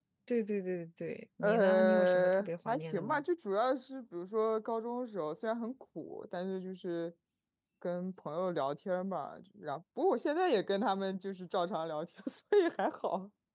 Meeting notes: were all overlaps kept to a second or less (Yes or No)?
No